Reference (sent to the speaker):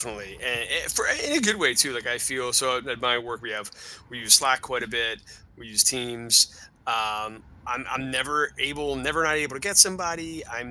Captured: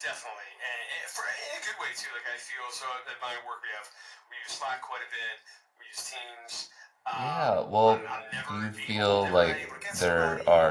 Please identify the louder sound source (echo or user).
user